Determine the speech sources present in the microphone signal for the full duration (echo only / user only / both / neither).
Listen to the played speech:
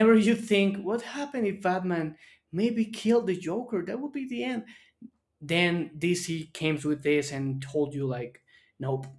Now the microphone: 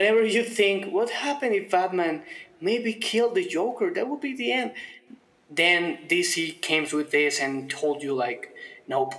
echo only